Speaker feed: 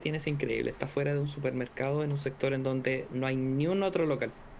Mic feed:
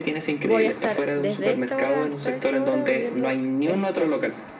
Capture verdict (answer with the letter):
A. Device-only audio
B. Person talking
B